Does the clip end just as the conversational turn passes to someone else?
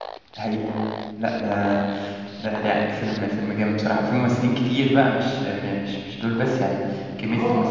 Yes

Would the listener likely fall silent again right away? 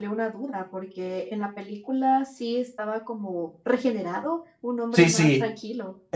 No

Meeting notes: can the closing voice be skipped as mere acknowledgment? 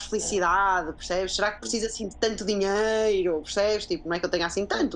Yes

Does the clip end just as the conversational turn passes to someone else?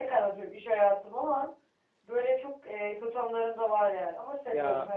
Yes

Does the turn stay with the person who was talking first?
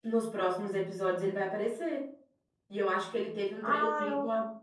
Yes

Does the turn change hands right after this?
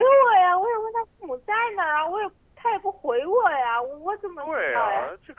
Yes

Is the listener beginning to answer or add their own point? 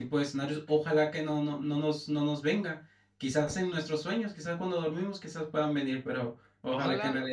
Yes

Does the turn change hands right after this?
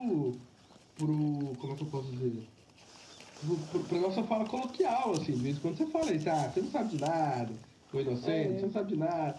No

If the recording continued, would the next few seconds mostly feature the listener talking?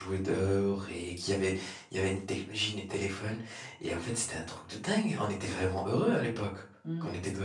Yes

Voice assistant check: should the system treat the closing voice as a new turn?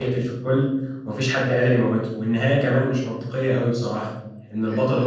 No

